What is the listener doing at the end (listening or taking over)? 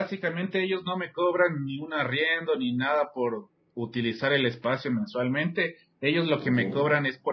listening